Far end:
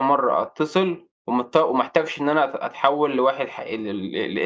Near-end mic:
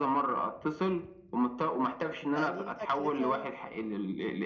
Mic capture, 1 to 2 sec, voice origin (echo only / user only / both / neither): echo only